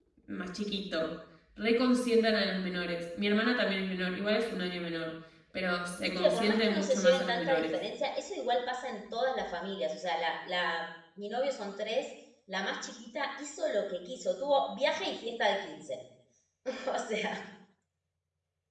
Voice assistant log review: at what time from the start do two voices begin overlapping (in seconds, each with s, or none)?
5.9 s